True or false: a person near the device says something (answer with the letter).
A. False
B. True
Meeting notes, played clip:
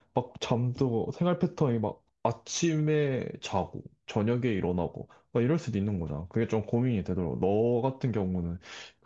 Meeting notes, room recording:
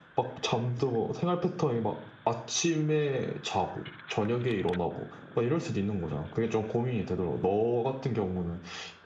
A